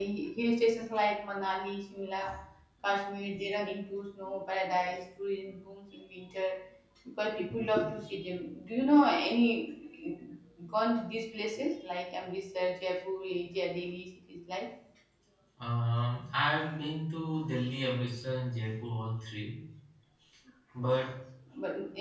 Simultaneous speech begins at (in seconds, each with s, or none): none